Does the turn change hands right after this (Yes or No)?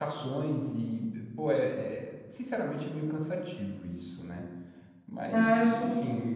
Yes